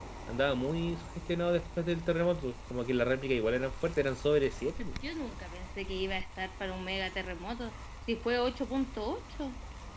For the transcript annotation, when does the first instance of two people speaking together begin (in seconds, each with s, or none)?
none